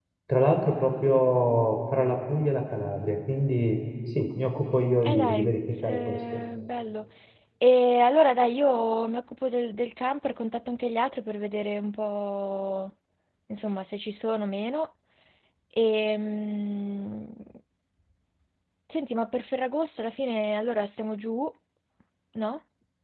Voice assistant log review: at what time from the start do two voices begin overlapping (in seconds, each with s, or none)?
5.0 s